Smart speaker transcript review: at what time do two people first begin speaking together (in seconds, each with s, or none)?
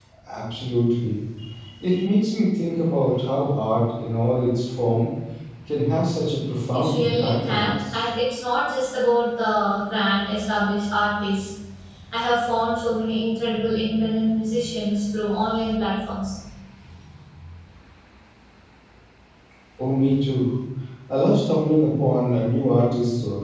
6.7 s